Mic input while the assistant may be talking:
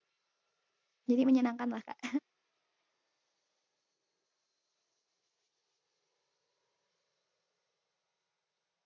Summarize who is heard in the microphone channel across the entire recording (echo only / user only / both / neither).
user only